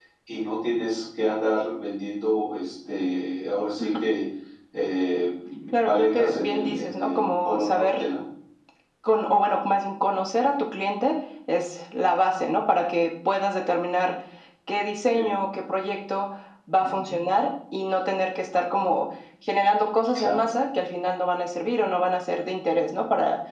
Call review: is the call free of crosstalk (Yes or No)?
No